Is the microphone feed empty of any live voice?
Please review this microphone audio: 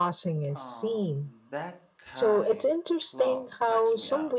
No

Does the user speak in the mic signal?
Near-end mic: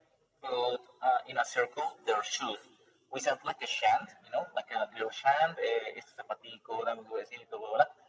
No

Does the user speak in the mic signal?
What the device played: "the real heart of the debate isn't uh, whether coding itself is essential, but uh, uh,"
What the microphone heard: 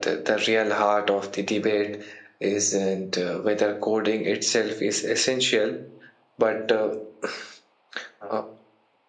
No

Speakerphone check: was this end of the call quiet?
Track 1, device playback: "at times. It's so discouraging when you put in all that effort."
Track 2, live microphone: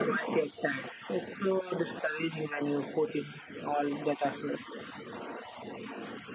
Yes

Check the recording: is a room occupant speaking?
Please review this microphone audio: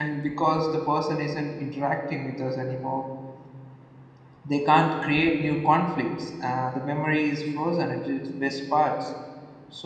Yes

